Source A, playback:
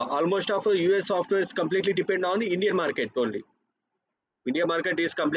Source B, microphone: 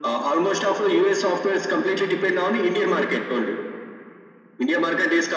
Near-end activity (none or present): none